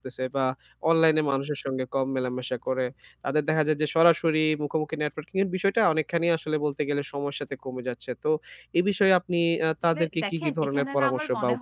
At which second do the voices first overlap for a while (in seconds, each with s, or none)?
9.9 s